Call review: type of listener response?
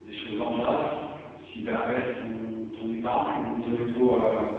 listening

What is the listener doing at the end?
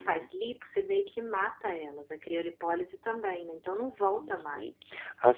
taking over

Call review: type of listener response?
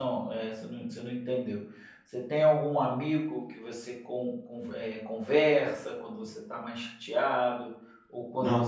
listening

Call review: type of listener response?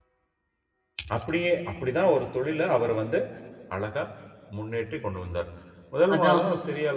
listening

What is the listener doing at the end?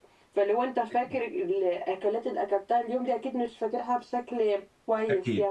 taking over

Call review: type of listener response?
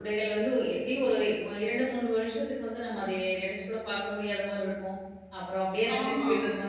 listening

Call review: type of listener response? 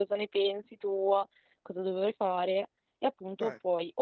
listening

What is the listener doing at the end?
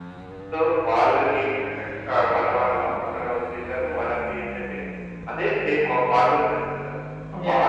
listening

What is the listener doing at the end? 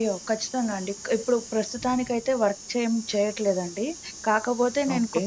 listening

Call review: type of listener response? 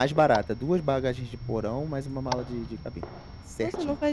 taking over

